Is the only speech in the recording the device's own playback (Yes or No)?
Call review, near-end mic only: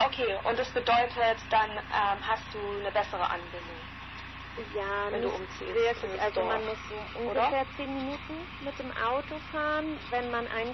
Yes